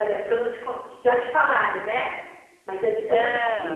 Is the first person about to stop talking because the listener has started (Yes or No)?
No